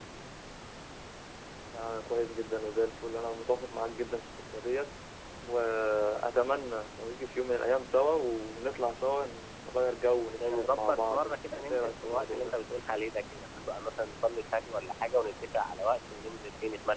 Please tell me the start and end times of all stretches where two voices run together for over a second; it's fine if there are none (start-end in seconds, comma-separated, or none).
10.5-12.6